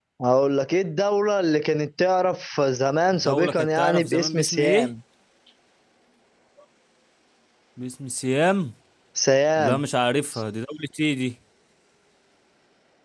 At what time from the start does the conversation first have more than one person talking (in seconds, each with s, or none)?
3.1 s